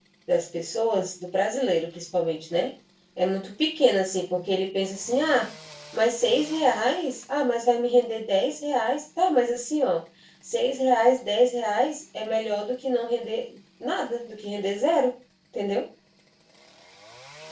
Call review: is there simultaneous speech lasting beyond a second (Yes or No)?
No